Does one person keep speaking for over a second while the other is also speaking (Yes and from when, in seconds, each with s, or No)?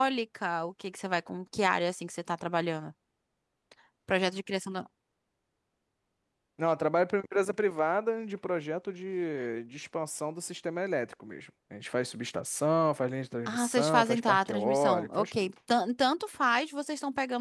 Yes, from 13.5 s